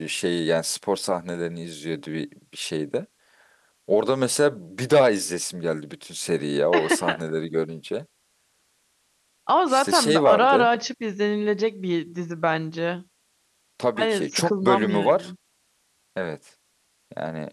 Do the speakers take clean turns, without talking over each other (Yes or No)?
No